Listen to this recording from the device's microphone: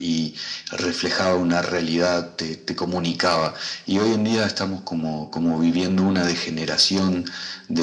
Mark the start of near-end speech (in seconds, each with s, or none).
none